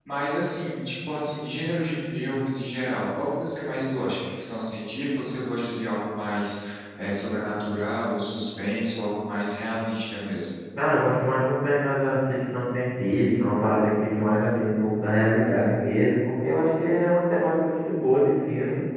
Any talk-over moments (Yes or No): No